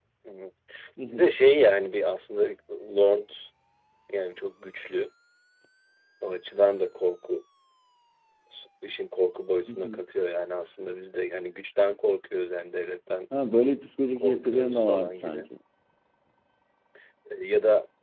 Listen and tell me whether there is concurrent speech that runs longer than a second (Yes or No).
Yes